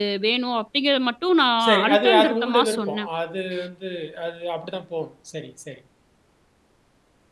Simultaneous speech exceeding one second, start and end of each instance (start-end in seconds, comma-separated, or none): 1.6-3.1